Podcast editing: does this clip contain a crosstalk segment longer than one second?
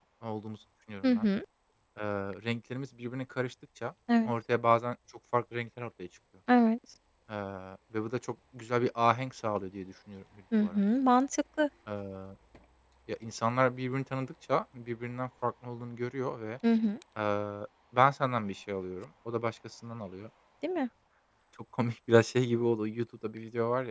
No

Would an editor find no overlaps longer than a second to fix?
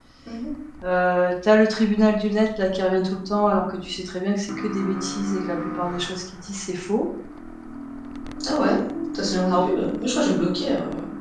Yes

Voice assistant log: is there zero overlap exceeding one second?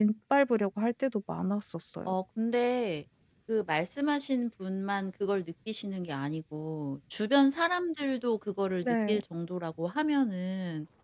Yes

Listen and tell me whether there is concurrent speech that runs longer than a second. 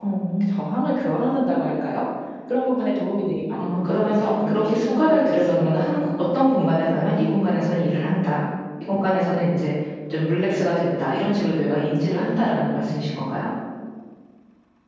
Yes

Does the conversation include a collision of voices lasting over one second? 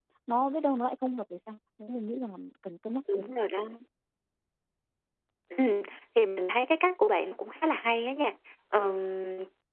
No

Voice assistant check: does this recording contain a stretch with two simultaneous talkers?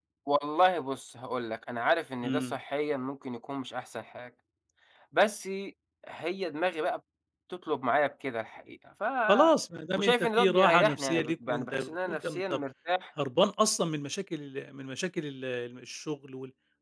Yes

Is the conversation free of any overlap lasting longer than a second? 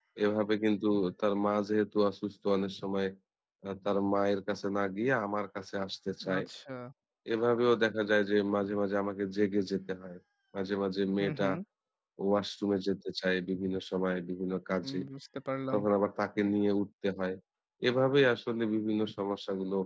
Yes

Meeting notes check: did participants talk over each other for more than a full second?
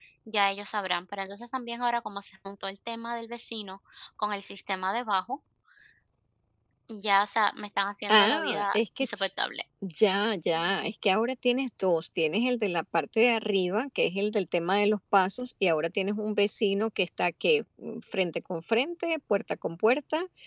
Yes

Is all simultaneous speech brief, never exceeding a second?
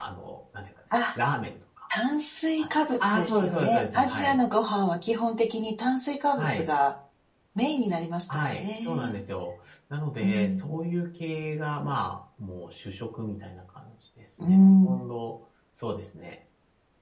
No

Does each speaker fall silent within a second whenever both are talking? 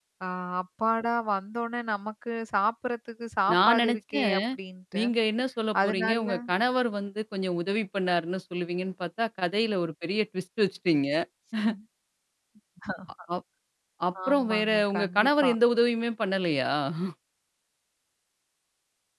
No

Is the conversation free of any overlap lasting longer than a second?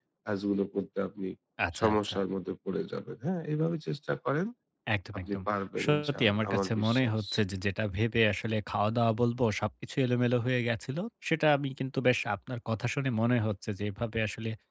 No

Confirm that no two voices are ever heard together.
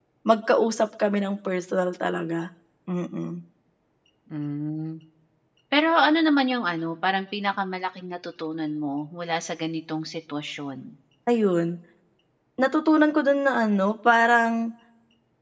Yes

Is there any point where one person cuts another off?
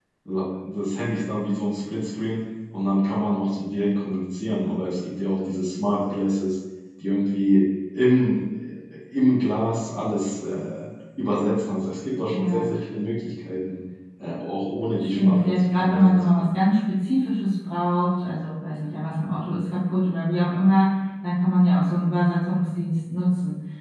Yes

